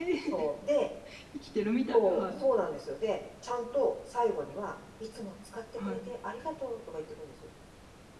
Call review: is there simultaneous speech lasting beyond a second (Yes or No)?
No